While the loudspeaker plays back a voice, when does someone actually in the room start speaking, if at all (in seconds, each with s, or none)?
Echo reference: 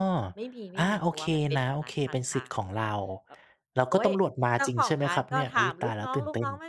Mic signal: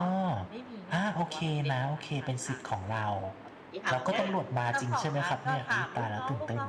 3.7 s